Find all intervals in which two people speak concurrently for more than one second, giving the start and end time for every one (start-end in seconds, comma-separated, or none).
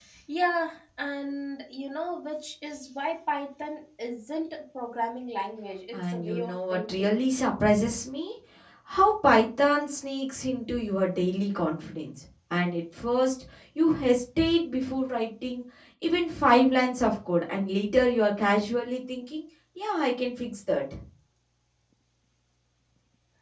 5.9-7.2